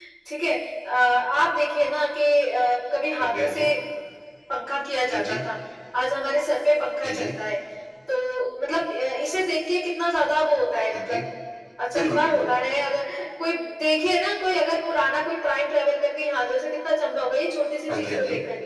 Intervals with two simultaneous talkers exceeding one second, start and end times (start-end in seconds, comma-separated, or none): none